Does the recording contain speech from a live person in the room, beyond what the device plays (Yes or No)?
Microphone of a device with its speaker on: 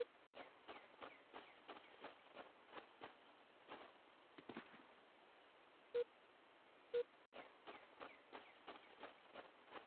No